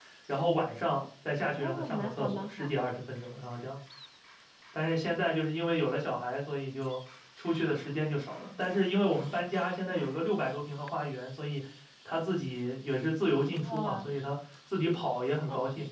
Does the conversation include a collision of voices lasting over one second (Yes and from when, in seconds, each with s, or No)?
Yes, from 1.5 s